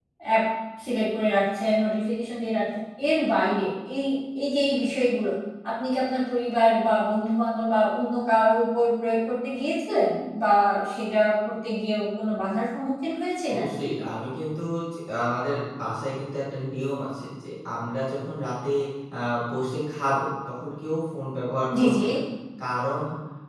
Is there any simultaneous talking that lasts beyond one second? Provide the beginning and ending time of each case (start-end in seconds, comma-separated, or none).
none